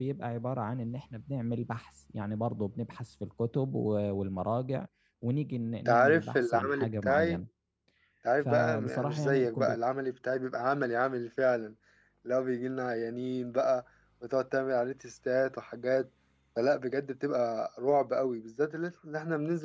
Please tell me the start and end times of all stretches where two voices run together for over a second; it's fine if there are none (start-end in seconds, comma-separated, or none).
5.8-7.4, 8.4-9.8